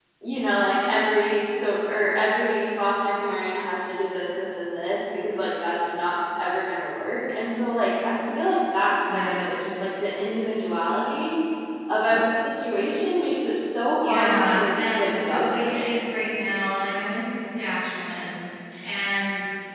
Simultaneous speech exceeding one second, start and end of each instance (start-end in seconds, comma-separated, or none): 14.0-15.9